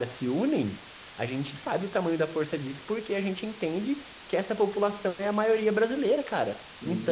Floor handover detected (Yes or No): No